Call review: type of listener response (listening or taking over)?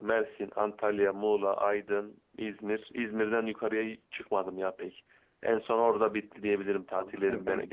taking over